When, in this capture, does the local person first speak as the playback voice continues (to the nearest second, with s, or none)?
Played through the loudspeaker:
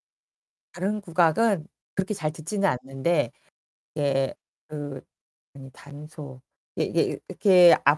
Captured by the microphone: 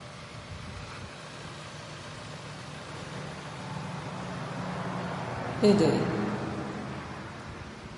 6 s